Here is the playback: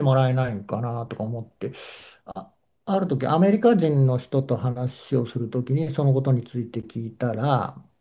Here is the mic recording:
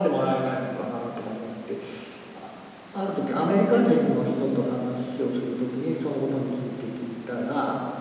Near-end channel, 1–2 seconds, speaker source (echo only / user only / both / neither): echo only